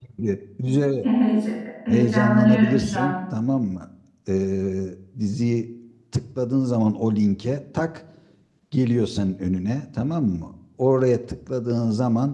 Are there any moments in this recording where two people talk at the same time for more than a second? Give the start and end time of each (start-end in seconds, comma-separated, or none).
1.9-3.1